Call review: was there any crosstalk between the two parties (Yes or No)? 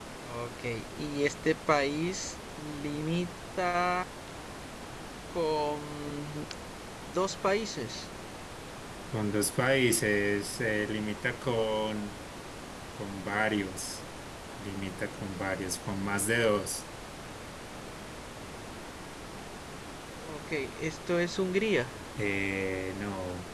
No